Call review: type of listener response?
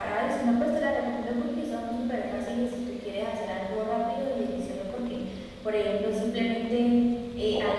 listening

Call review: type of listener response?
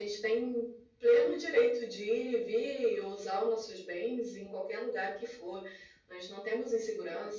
listening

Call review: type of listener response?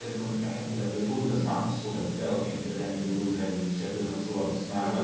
taking over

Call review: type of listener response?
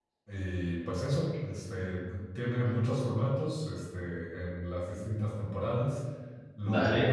listening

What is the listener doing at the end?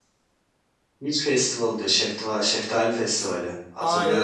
taking over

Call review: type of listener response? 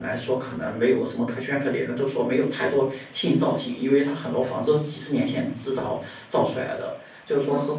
listening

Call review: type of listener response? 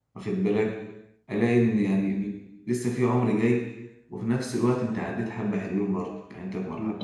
taking over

